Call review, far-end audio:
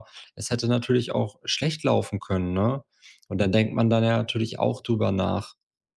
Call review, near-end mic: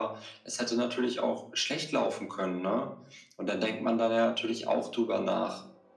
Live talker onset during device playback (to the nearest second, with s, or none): none